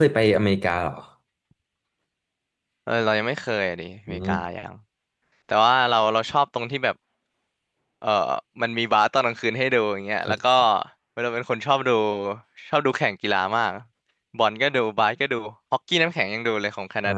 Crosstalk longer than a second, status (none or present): none